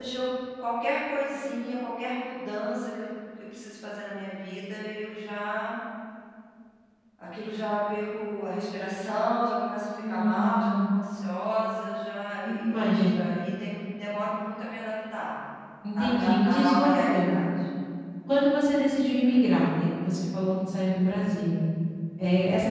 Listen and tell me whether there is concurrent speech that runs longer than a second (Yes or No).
Yes